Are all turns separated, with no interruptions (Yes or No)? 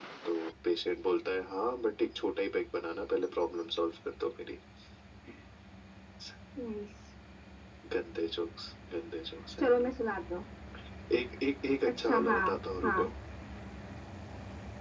No